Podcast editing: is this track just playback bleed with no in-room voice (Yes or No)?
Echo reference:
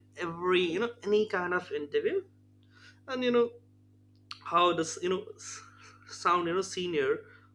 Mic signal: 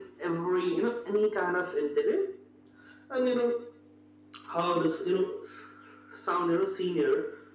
Yes